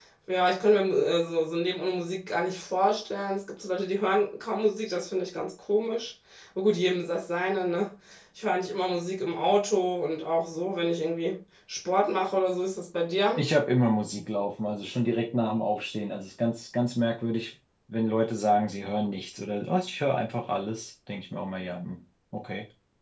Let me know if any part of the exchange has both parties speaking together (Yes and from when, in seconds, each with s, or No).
No